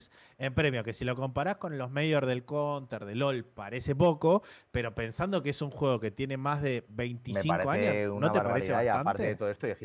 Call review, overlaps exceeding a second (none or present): present